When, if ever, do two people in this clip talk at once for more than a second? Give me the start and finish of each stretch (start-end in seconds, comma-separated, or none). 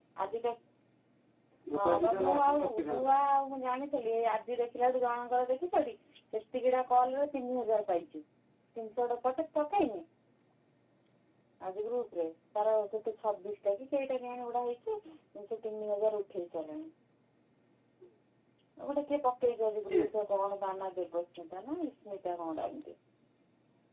1.8-3.1